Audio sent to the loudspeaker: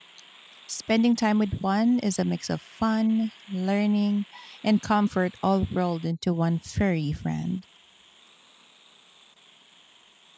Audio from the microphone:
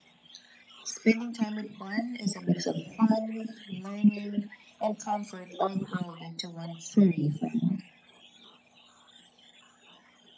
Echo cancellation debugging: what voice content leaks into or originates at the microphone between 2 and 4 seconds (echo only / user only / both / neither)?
echo only